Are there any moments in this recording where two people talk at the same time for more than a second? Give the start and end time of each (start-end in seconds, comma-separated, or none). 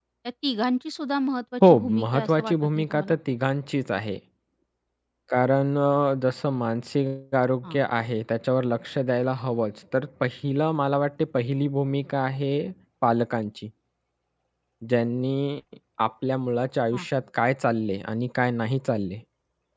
1.7-3.1